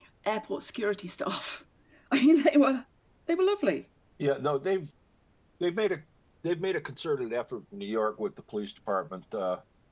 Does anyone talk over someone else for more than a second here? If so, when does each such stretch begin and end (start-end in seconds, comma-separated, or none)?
none